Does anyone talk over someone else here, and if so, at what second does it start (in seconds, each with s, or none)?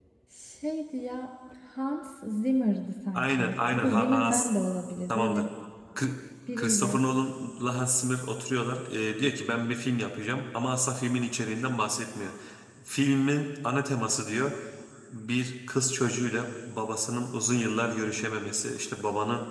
3.1 s